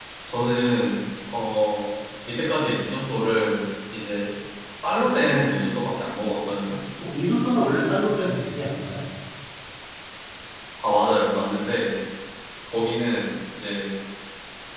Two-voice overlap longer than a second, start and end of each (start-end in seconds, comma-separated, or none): none